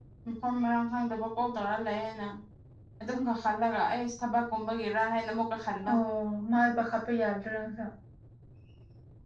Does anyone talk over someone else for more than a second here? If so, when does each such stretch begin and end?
none

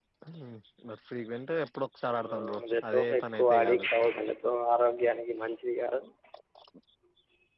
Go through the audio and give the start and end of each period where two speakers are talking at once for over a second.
2.1-3.9

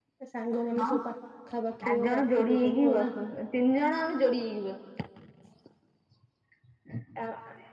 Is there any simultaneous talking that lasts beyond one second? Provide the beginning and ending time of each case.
1.8-3.1

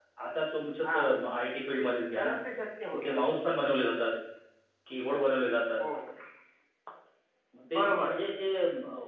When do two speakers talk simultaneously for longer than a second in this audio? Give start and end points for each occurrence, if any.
none

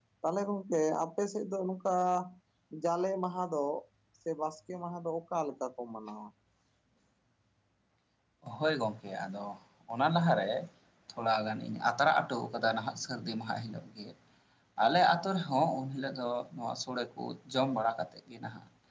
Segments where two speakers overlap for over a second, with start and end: none

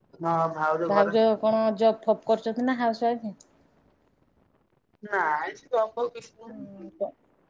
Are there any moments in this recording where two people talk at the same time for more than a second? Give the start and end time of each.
none

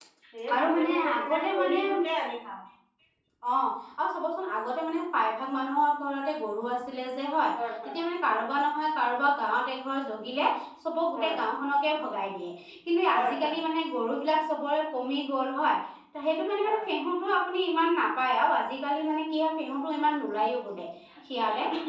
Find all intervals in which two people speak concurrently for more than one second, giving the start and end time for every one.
0.5-2.0

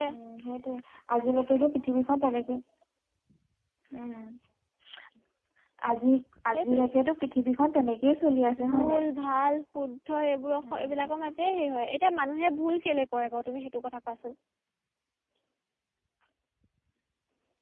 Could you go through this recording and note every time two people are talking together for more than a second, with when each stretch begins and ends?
none

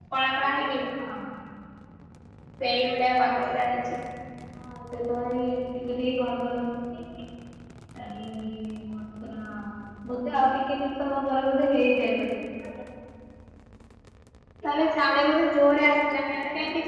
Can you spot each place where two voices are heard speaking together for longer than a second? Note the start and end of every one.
none

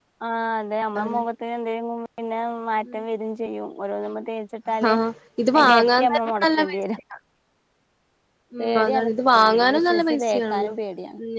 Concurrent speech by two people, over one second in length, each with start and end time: 5.5-6.8, 8.6-10.7

